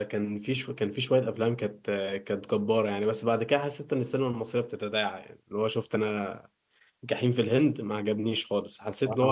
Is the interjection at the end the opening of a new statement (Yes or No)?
No